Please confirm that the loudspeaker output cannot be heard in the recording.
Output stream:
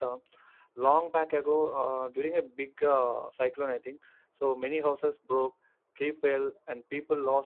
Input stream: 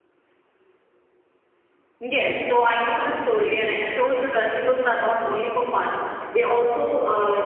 Yes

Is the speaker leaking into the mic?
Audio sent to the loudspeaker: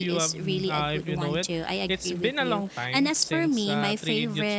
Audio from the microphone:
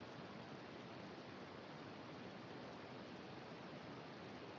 No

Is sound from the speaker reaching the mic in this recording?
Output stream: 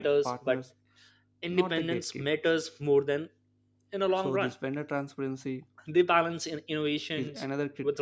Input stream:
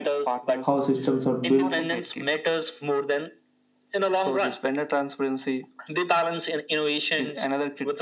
Yes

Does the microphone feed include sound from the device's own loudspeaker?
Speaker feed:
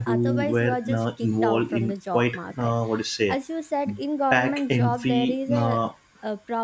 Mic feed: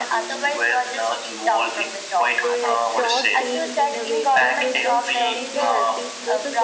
Yes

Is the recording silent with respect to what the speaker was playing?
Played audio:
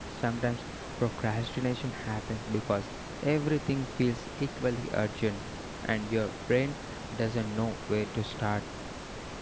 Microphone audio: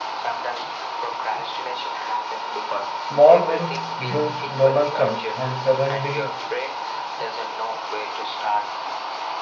No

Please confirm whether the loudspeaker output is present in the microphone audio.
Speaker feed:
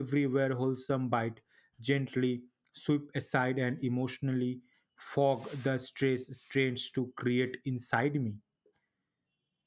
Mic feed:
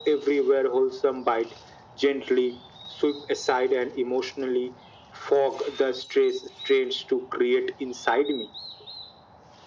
Yes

